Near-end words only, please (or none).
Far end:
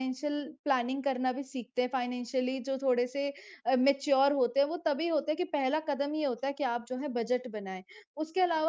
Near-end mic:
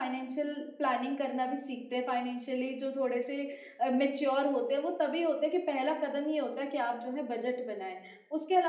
none